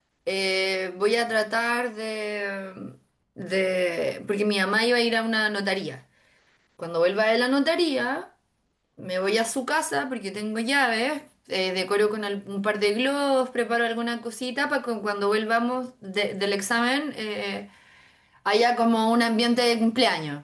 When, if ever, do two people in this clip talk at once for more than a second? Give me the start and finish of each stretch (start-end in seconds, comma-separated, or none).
none